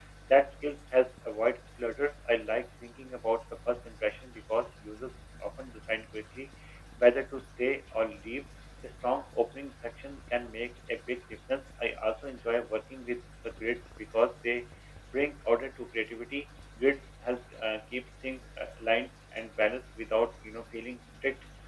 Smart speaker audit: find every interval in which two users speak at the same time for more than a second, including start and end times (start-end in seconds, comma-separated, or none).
none